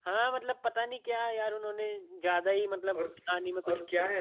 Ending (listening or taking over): taking over